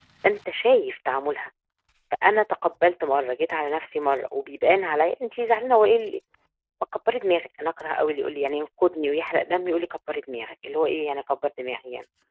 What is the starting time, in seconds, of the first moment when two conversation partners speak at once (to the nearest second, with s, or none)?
none